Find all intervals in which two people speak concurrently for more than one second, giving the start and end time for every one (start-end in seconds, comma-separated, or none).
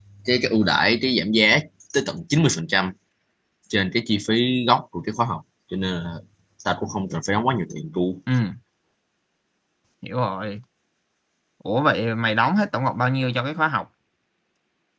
none